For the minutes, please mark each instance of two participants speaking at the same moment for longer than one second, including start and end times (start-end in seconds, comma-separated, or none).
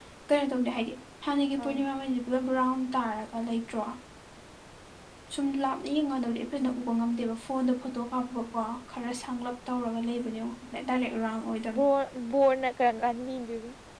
none